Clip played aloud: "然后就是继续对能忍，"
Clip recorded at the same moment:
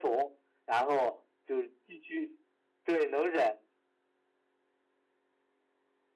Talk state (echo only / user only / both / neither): echo only